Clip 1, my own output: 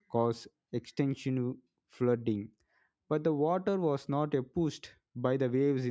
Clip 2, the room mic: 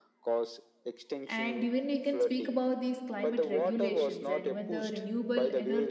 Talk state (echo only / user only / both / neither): both